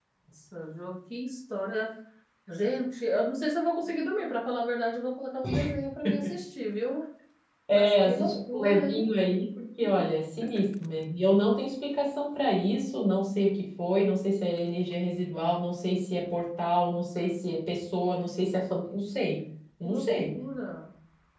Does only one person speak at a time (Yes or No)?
No